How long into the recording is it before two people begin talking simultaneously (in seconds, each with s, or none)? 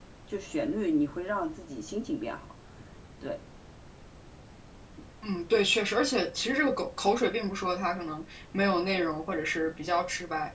none